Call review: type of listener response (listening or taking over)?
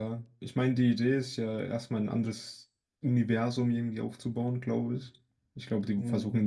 listening